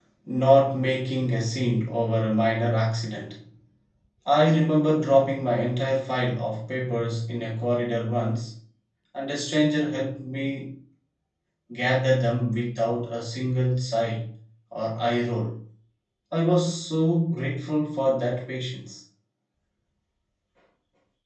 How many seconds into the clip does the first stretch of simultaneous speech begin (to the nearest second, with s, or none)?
none